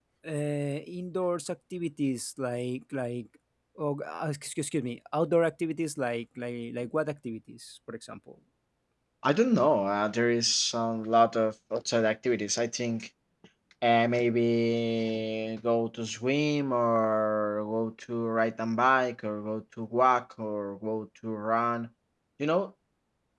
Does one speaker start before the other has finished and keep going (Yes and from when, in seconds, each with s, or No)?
No